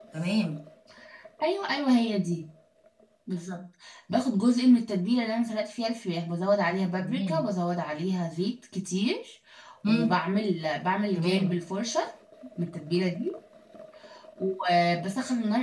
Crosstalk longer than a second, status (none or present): none